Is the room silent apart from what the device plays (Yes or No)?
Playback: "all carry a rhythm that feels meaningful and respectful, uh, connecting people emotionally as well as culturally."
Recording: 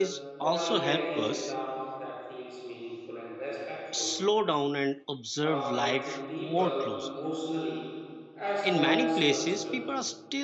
No